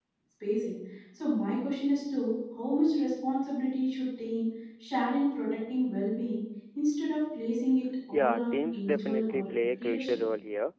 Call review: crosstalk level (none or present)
present